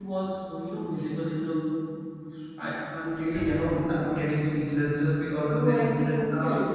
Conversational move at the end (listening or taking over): taking over